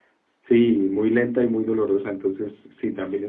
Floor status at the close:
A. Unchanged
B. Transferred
A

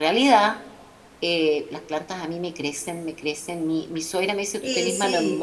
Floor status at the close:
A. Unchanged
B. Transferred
A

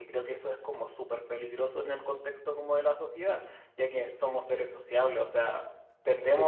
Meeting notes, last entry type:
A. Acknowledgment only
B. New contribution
A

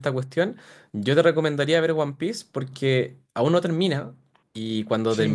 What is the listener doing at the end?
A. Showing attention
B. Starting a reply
A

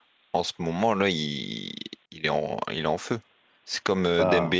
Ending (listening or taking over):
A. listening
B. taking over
A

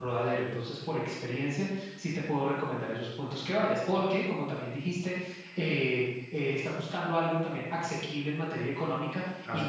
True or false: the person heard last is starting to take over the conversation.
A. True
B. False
B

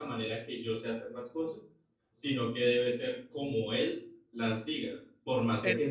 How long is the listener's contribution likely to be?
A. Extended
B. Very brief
B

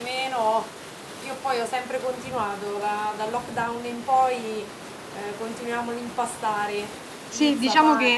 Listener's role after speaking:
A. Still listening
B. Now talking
B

